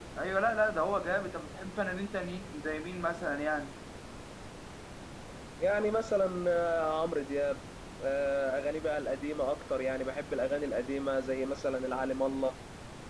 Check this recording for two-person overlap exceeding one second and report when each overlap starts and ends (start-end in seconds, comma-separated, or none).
none